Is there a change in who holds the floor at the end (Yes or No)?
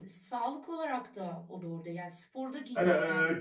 No